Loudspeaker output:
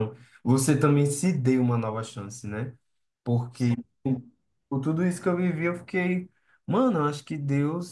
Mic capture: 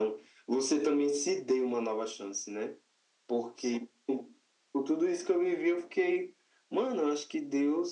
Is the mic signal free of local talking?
Yes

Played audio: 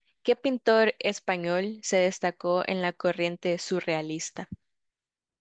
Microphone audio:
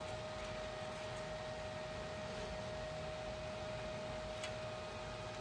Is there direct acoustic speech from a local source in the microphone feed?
No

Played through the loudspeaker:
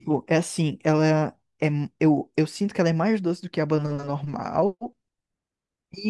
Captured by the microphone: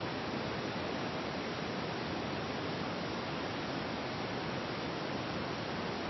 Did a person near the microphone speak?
No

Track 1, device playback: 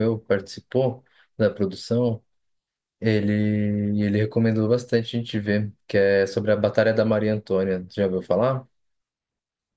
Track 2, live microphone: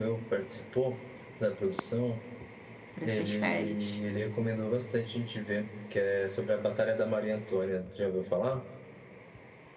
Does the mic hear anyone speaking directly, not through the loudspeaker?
Yes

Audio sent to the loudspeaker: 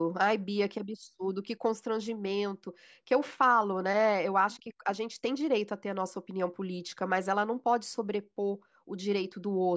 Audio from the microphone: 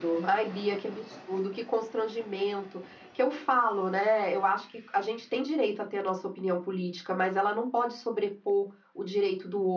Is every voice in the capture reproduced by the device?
Yes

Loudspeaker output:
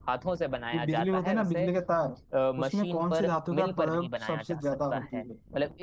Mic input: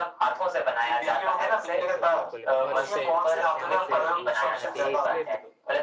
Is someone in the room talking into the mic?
Yes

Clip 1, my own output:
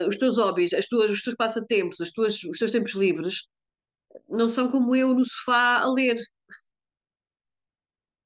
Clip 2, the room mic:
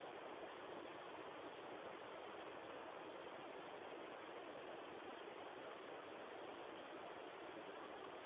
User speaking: No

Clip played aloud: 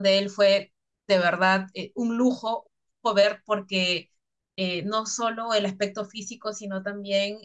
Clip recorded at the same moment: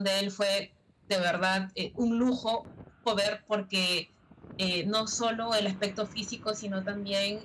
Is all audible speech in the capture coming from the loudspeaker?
Yes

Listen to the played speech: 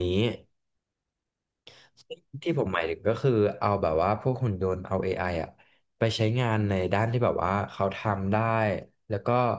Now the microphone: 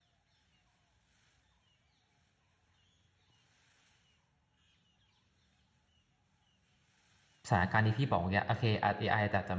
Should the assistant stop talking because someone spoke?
Yes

